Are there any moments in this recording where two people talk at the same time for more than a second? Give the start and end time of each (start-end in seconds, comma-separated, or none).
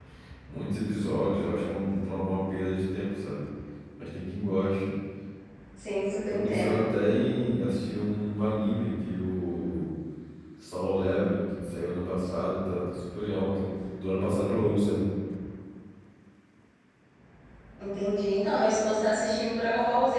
none